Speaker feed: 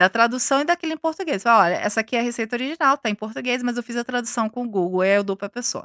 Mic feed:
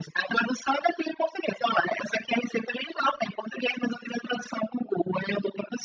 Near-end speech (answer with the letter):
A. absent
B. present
A